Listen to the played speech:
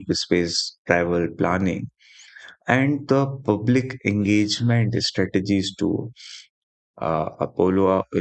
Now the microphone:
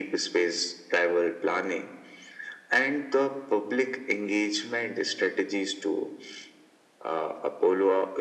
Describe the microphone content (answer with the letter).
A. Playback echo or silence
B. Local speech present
A